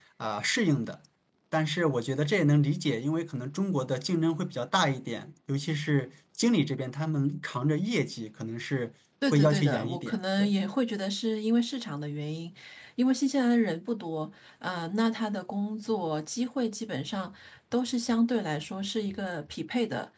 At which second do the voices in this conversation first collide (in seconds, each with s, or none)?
9.2 s